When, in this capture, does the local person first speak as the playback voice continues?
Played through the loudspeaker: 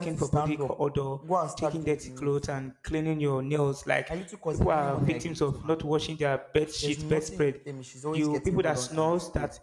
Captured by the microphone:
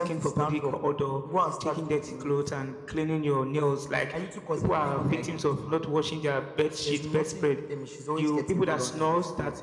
none

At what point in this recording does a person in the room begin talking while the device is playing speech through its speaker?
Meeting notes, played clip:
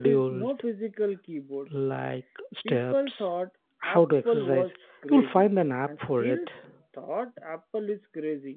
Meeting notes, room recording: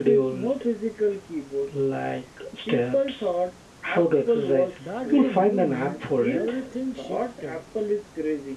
4.8 s

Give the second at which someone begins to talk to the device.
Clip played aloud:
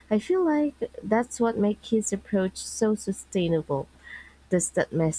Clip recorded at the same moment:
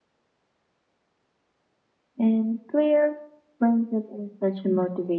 2.2 s

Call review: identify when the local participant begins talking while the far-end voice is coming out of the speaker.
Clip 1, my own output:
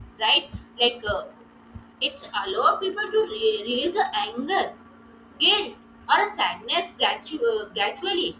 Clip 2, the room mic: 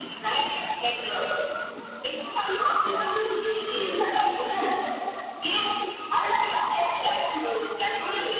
2.8 s

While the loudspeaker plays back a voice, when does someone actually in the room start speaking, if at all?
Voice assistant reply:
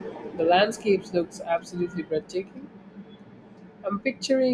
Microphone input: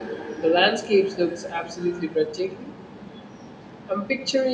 none

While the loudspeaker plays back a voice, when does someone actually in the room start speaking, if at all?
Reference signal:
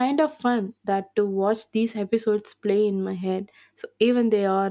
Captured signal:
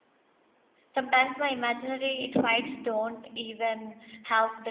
0.9 s

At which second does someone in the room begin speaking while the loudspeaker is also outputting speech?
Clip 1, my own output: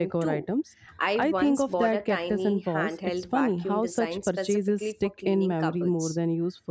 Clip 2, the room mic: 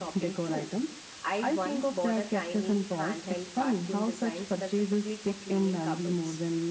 none

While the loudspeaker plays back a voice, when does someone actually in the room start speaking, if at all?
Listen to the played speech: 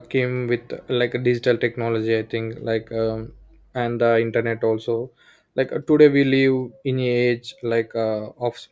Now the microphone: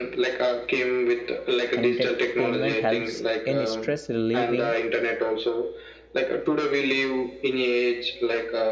1.8 s

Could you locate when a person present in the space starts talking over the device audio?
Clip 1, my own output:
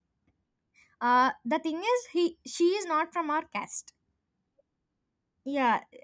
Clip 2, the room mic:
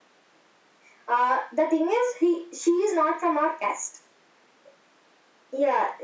none

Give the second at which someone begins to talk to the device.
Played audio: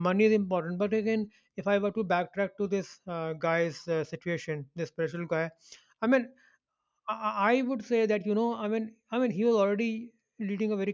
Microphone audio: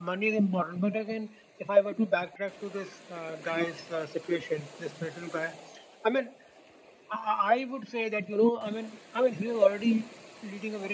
none

